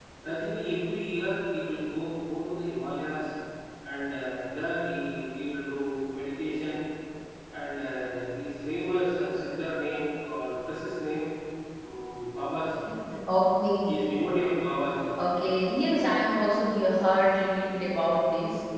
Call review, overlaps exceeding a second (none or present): none